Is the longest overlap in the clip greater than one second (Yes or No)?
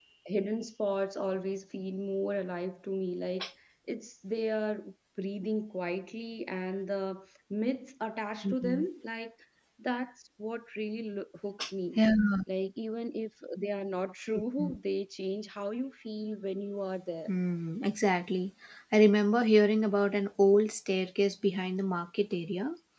No